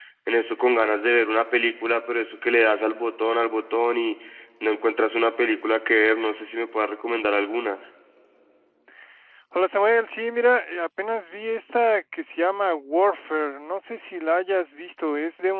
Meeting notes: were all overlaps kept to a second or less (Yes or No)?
Yes